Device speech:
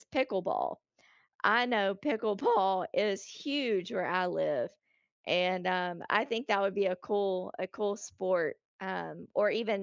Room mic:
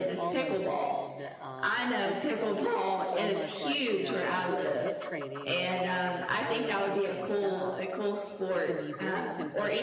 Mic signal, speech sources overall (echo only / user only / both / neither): both